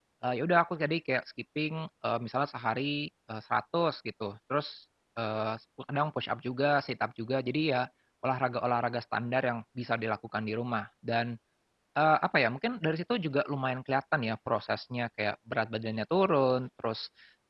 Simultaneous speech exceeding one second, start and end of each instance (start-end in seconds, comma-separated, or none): none